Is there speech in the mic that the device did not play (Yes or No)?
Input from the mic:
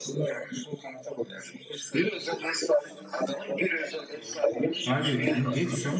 Yes